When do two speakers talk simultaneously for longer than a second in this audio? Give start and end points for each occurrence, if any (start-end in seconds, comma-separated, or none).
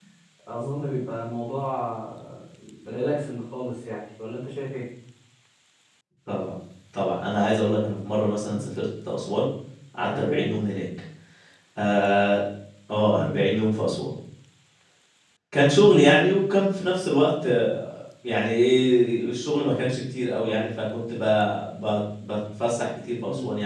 none